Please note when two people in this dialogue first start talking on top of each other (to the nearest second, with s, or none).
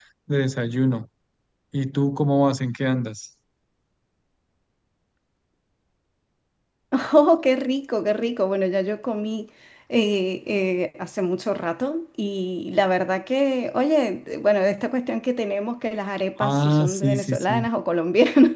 16 s